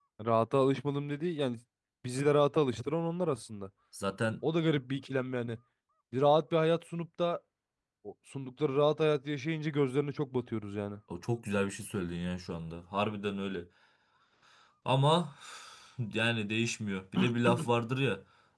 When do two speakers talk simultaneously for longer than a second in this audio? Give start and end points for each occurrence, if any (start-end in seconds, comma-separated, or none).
none